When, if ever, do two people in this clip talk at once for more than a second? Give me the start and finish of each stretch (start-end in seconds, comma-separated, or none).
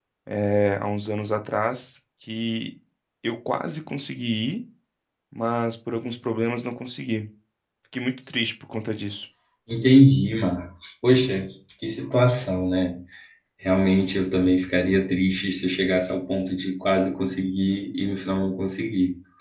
none